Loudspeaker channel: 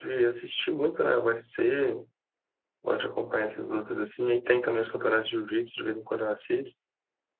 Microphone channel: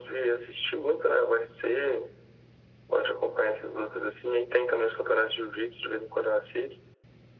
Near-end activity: none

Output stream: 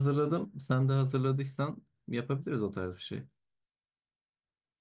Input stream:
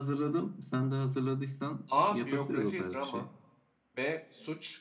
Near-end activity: present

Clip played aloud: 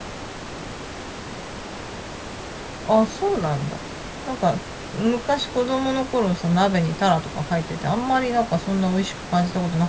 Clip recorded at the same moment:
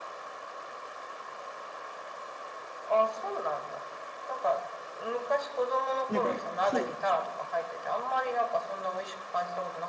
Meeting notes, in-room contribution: present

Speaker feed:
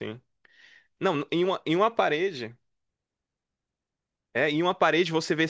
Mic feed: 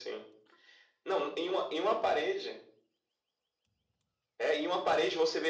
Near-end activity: none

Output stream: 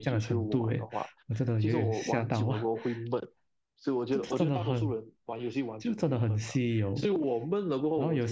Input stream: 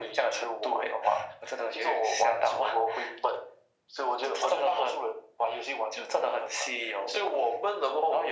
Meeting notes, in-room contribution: none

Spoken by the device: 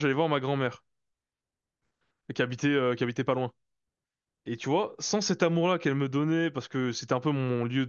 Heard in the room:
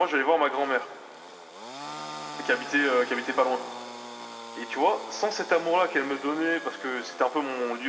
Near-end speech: none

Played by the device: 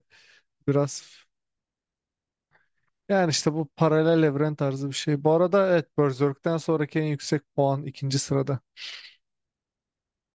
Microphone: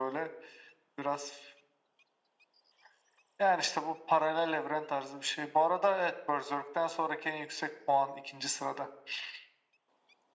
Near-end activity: none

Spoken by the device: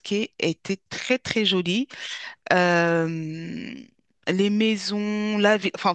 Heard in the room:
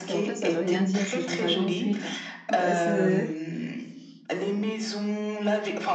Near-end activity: present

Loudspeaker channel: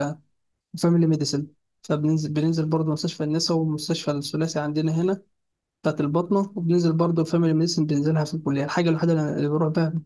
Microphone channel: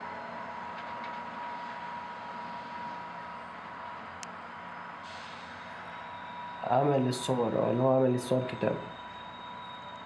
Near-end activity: present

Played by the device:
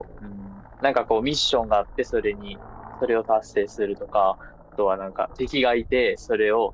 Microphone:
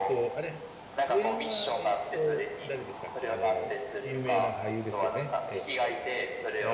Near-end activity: present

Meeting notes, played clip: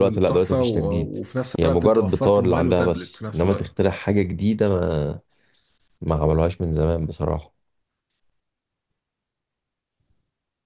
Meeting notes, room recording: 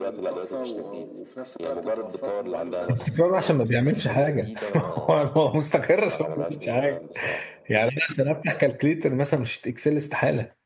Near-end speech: present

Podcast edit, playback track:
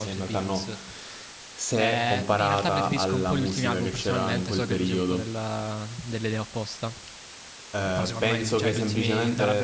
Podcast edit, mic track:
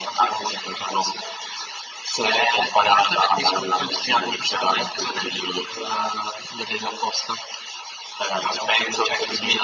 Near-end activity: none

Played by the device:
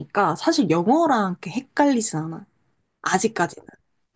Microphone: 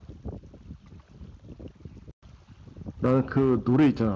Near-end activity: present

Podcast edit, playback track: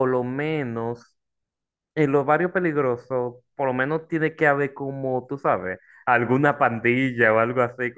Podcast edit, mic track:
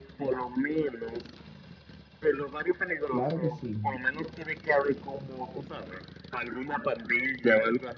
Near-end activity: present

